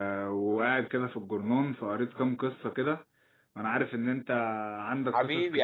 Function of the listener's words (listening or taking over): taking over